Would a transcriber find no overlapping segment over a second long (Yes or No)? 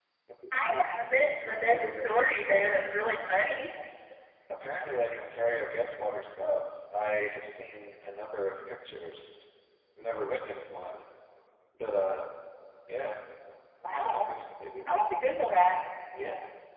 No